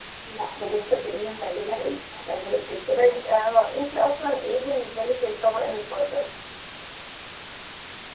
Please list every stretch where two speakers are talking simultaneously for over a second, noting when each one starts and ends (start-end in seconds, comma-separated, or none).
none